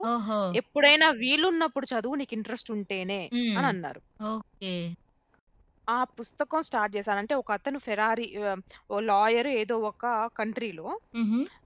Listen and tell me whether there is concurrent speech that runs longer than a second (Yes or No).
No